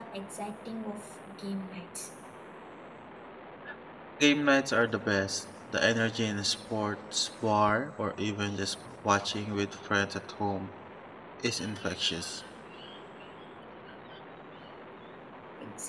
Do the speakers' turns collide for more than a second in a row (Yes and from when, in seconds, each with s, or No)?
No